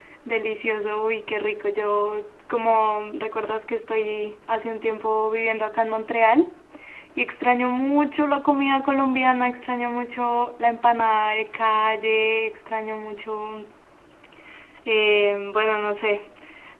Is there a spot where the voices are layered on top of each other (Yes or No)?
No